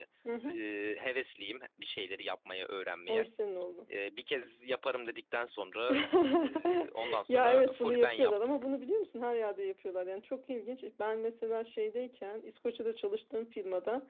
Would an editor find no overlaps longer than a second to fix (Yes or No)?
No